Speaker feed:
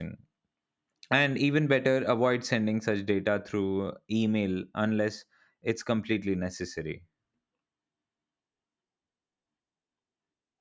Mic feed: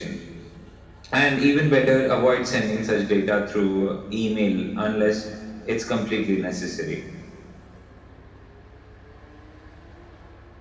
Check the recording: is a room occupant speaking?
No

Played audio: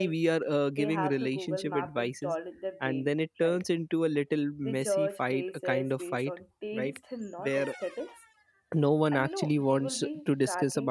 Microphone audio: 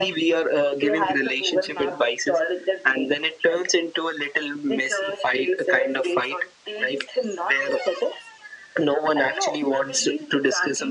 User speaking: No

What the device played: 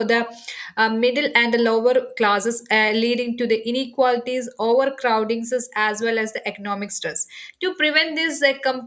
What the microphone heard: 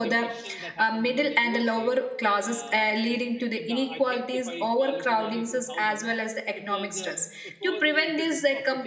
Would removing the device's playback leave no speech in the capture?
No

